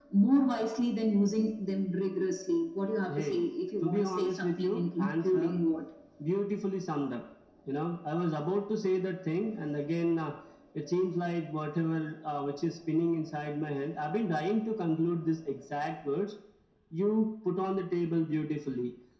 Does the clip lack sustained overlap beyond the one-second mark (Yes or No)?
No